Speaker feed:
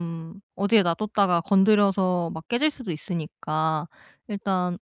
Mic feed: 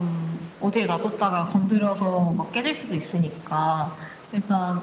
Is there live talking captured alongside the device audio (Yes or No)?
No